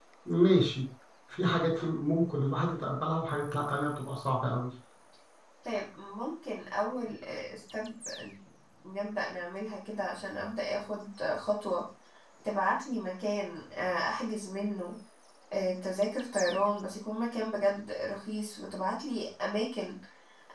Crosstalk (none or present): none